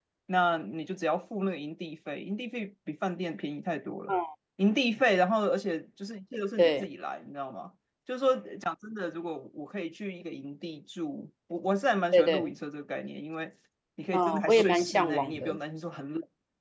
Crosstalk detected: Yes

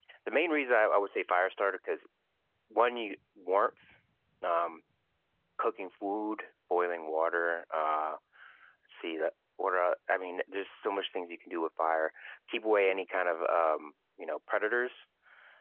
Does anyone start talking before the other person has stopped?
No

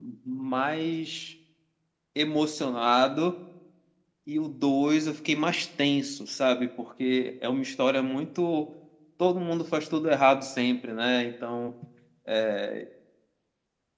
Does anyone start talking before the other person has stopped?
No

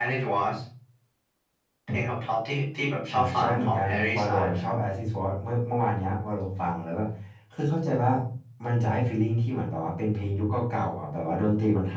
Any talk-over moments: Yes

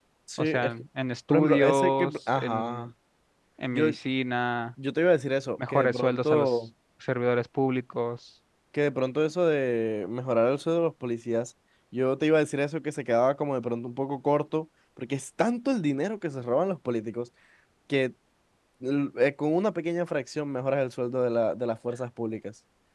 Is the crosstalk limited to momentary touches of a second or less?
No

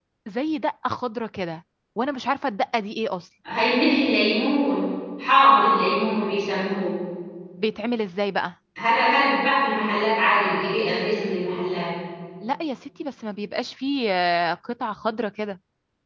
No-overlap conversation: Yes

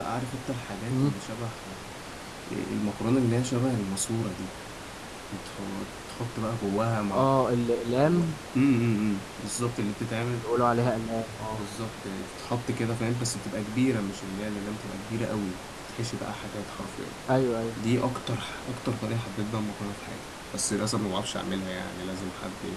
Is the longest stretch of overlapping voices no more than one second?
Yes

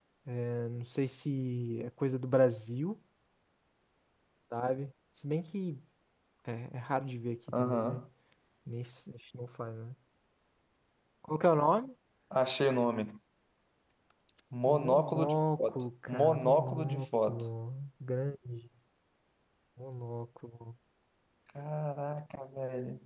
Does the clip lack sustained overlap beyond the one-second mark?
No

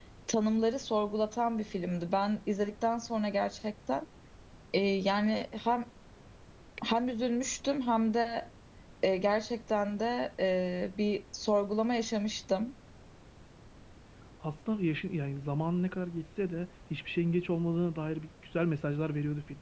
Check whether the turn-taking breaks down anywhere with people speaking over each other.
No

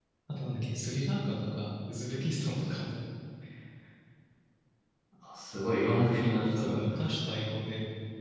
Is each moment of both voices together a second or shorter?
Yes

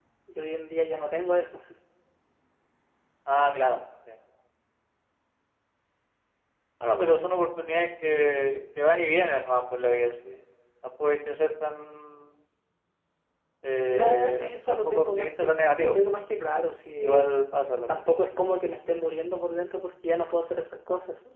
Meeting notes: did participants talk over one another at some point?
Yes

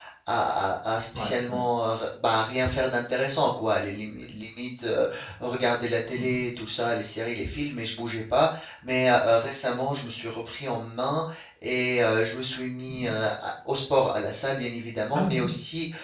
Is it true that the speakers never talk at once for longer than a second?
Yes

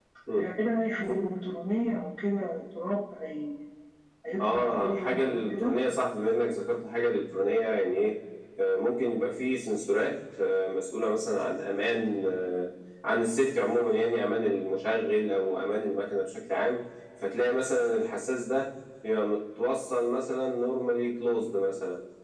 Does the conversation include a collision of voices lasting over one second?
Yes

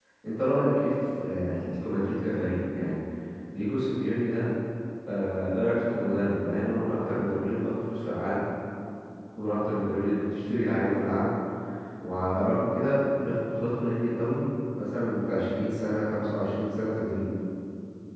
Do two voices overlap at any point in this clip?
No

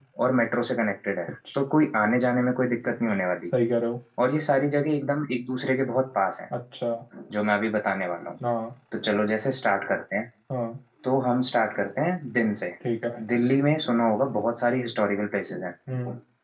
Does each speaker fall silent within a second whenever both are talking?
Yes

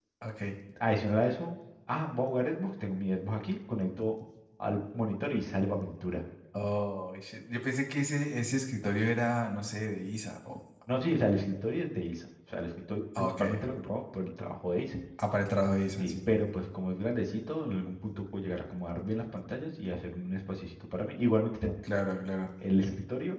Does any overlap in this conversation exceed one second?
No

